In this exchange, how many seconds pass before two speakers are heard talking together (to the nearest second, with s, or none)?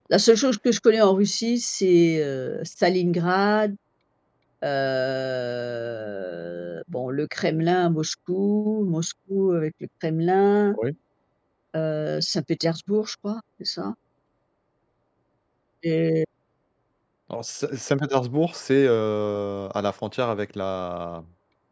none